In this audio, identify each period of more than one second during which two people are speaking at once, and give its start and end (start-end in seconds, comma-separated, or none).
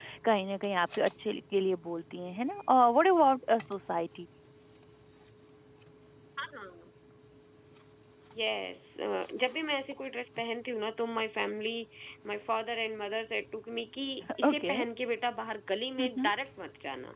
none